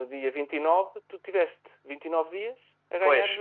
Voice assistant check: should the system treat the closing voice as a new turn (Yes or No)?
Yes